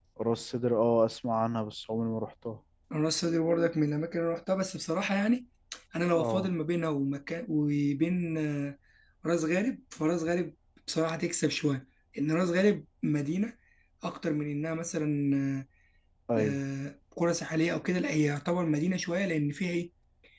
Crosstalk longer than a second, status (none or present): none